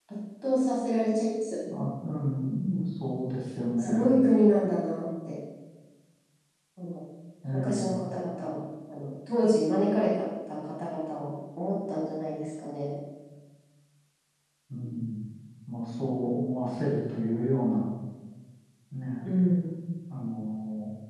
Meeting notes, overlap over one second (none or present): none